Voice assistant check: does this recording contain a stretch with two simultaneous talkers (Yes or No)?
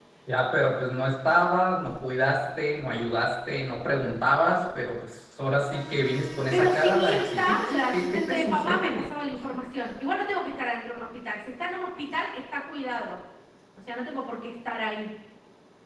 Yes